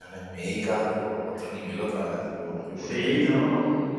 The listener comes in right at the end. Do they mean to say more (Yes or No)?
Yes